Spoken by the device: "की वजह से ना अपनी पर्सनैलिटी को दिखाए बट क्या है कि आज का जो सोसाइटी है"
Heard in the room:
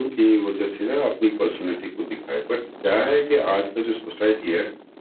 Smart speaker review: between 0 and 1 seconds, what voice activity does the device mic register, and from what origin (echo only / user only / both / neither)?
echo only